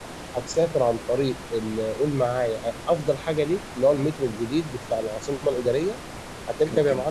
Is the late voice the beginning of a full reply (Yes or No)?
No